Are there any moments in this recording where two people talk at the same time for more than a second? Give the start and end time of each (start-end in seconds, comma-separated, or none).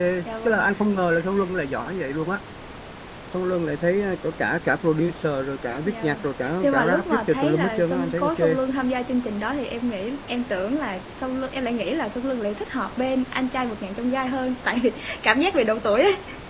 6.6-8.6